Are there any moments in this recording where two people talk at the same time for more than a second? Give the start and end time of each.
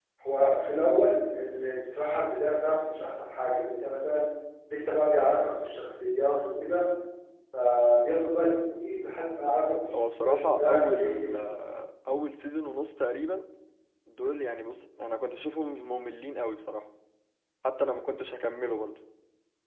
10.2-11.5

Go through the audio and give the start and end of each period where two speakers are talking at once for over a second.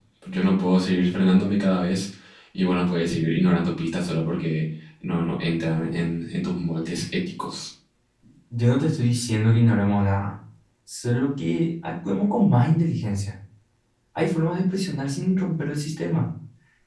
none

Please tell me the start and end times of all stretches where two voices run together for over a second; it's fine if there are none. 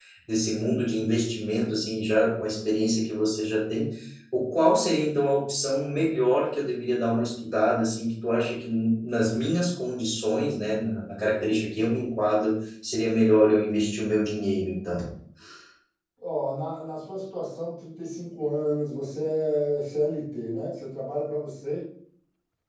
none

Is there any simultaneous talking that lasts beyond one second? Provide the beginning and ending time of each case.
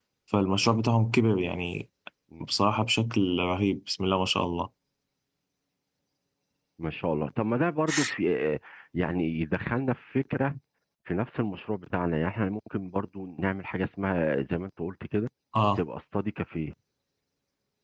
none

